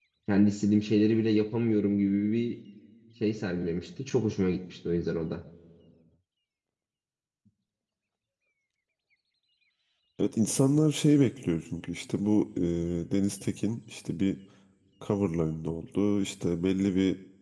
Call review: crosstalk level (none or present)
none